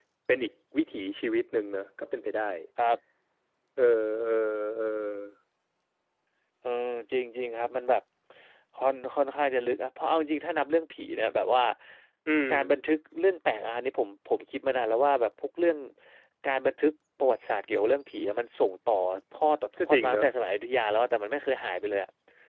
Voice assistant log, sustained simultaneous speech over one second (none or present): none